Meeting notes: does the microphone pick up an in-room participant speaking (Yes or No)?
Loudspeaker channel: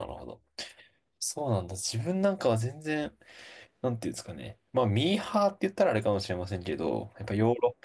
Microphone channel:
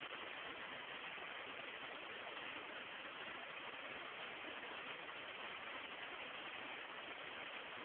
No